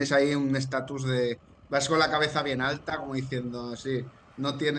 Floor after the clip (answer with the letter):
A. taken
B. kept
B